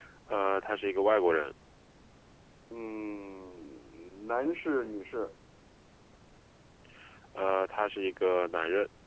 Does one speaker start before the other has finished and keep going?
No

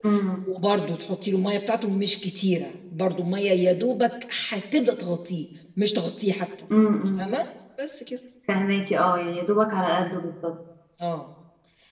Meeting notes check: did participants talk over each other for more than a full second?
No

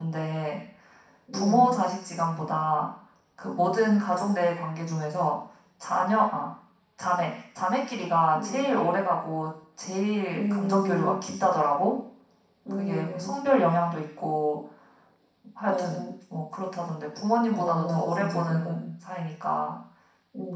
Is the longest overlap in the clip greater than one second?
Yes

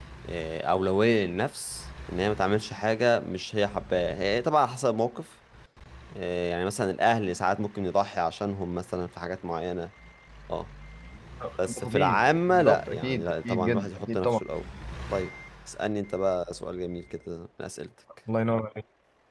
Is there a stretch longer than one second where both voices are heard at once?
Yes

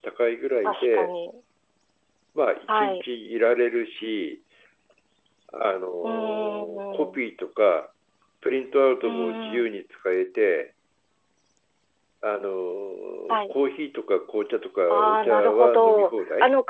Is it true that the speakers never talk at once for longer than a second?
No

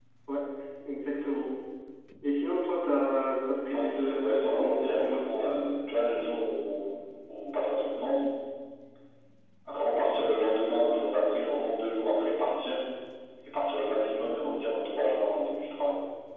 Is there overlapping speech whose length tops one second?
Yes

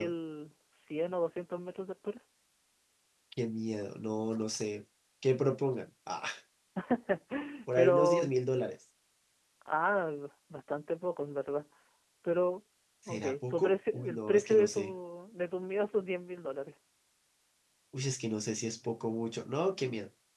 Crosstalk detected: Yes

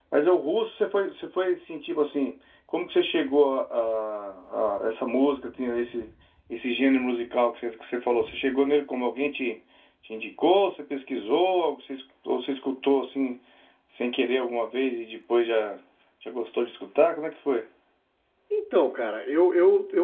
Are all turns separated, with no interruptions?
Yes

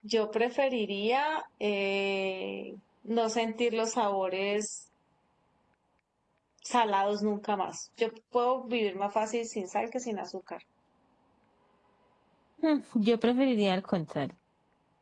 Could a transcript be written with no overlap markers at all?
Yes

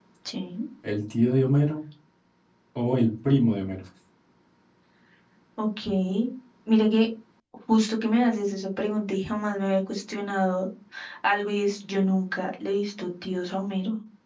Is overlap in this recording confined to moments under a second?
Yes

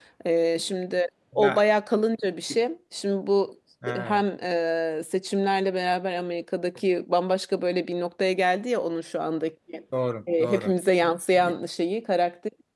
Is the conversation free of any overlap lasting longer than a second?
Yes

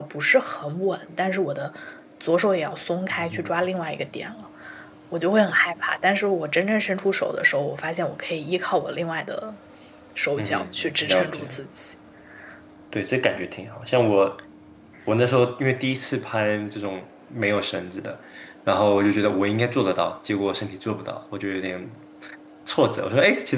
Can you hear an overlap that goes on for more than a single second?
Yes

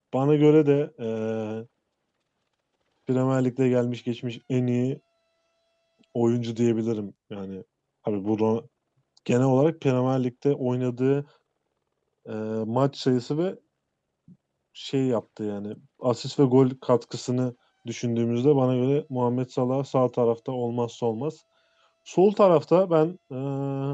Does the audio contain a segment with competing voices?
No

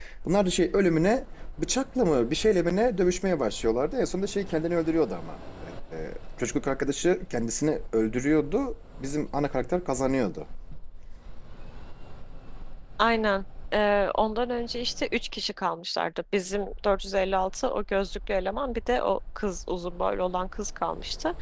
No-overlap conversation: Yes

